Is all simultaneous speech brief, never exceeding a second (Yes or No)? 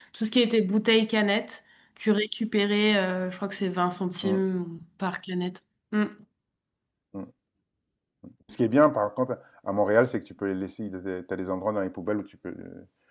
Yes